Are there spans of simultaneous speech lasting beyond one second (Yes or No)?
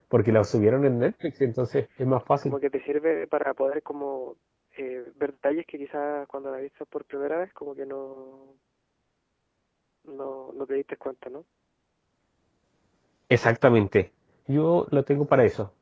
No